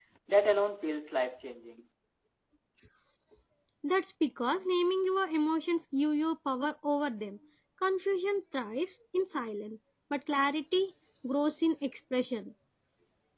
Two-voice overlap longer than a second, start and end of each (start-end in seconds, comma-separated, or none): none